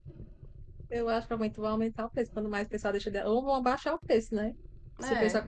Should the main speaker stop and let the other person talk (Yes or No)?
No